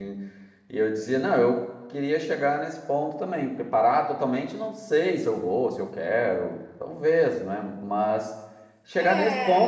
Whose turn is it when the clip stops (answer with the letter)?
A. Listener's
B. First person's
B